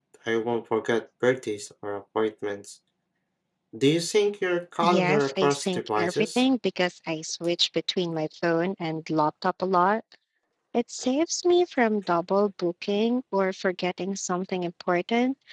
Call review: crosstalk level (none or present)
present